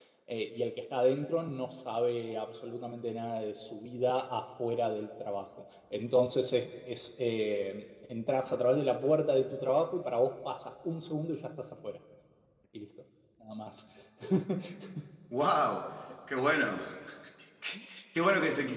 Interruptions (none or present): none